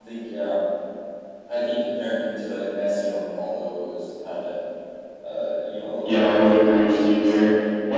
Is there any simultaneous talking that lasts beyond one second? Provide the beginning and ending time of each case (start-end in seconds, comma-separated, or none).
6.0-7.5